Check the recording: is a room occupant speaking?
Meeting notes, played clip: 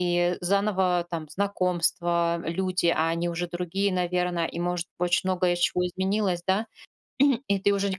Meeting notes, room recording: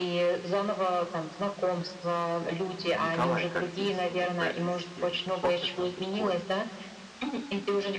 Yes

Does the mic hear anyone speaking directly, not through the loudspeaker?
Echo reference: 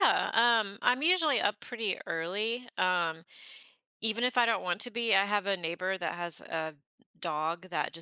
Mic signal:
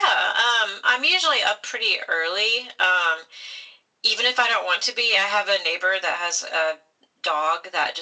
No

